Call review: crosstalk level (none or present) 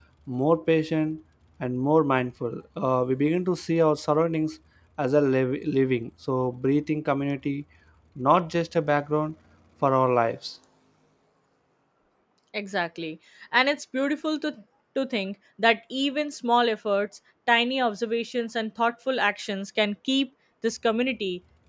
none